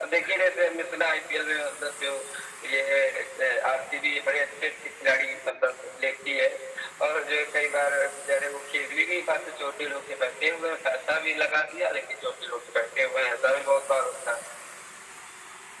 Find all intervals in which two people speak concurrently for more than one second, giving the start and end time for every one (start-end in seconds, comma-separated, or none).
none